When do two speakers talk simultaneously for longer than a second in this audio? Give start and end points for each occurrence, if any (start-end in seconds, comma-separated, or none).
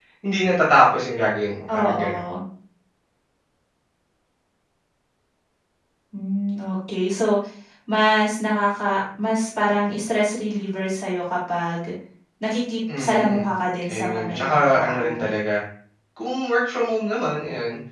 13.9-15.3